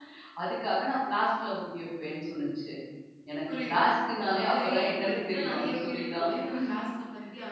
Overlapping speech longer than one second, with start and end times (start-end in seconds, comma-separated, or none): 4.2-6.3